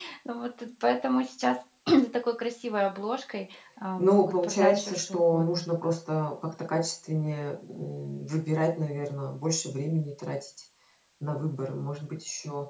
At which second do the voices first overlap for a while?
4.0 s

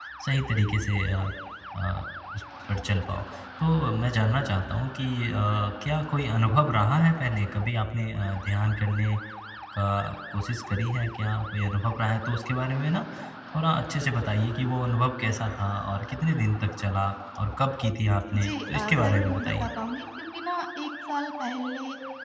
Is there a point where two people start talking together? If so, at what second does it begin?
18.3 s

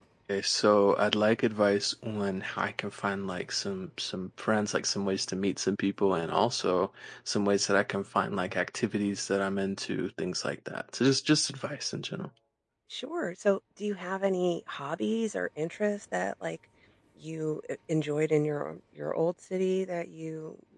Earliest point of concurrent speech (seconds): none

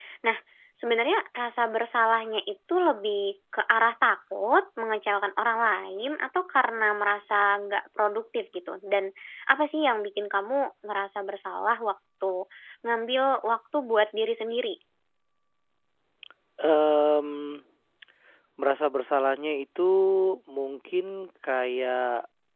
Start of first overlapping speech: none

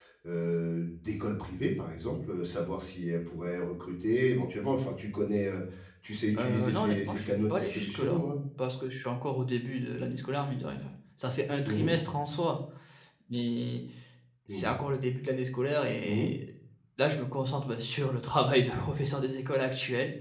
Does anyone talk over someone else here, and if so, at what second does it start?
6.4 s

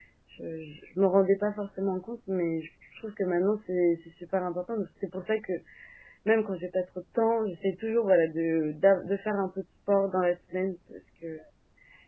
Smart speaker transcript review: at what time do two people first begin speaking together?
none

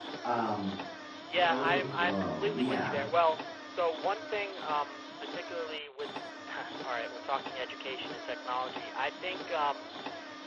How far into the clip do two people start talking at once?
1.5 s

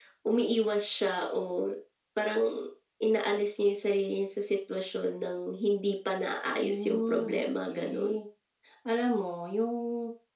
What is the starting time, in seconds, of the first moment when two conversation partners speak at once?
6.6 s

